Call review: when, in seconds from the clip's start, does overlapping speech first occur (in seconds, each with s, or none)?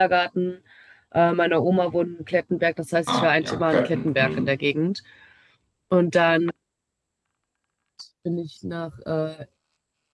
3.1 s